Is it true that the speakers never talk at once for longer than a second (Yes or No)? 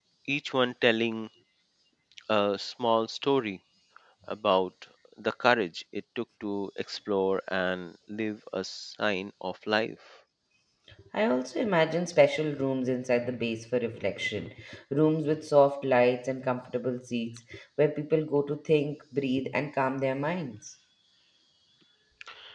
Yes